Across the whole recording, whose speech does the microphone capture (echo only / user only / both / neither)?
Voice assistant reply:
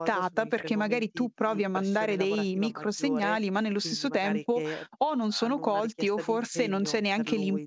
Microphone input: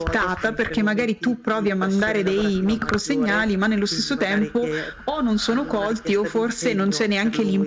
echo only